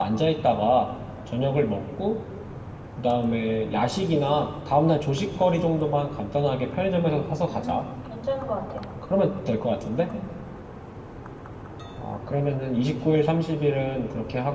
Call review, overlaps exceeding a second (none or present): none